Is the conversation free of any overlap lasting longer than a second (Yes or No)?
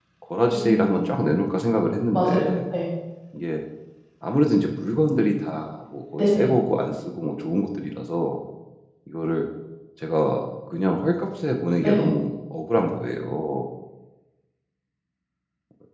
Yes